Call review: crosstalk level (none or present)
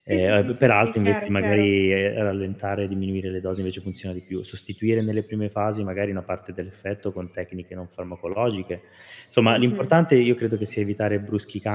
present